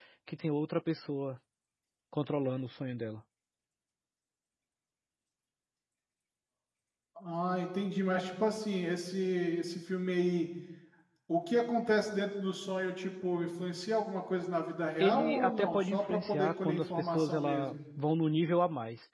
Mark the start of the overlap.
15 s

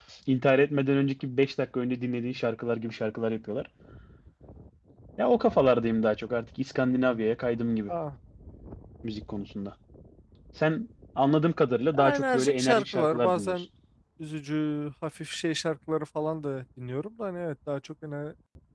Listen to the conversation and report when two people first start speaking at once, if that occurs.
12 s

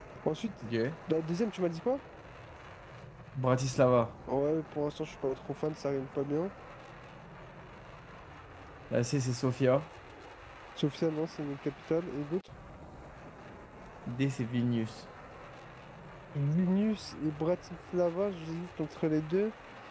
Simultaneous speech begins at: none

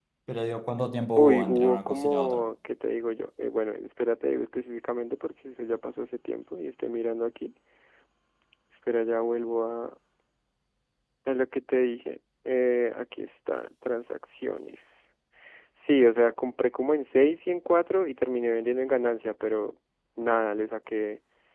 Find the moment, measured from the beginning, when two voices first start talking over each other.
1 s

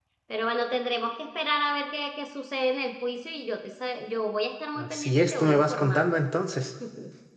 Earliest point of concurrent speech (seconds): 5 s

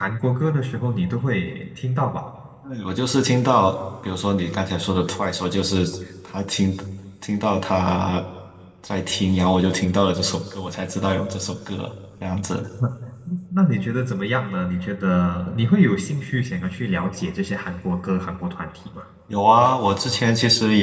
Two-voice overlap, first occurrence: none

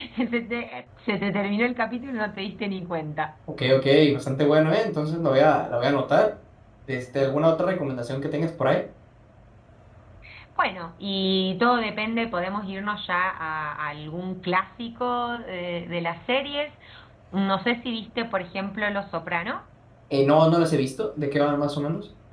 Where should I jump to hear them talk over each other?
none

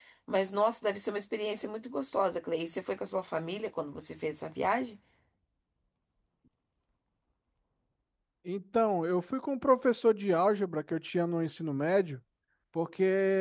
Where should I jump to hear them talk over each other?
none

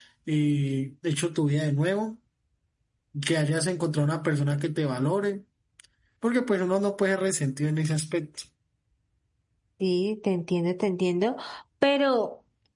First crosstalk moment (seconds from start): none

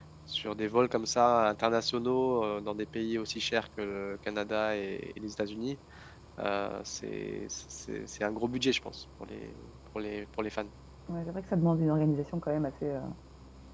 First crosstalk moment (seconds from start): none

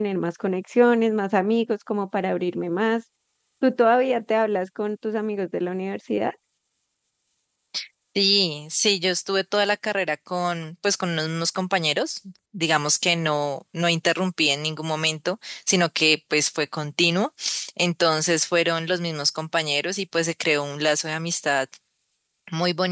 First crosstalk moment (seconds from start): none

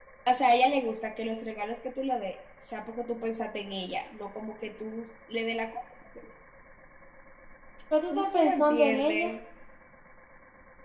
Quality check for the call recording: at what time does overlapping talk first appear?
8 s

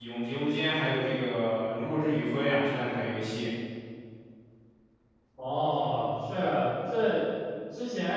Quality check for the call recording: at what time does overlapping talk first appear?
none

